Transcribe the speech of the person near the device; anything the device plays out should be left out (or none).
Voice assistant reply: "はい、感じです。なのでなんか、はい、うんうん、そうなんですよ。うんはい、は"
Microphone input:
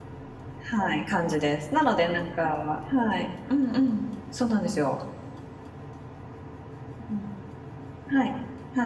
none